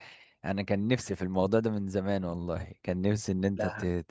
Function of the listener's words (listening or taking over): listening